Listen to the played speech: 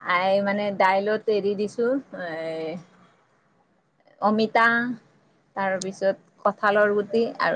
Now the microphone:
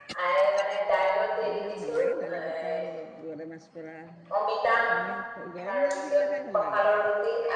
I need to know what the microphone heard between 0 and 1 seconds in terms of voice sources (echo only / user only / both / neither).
echo only